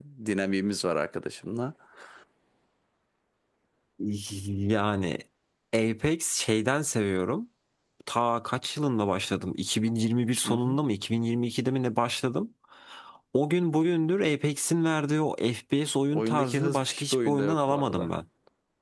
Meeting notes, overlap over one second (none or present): present